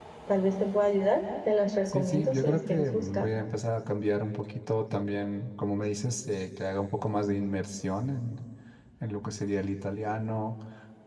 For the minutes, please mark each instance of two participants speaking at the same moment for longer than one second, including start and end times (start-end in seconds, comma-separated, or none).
1.9-3.3